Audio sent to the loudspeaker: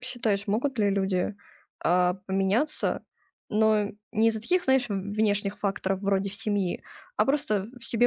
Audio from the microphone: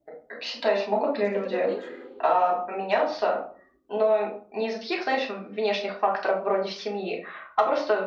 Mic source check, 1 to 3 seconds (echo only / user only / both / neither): both